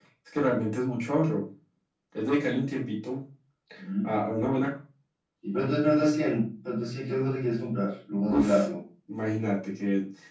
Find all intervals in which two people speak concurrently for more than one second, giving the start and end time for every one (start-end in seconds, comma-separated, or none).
none